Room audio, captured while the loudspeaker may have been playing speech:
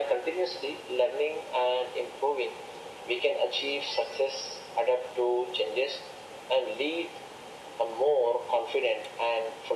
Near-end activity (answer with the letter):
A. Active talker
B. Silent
B